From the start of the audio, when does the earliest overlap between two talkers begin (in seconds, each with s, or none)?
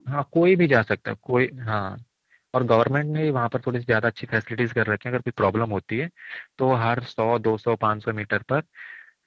none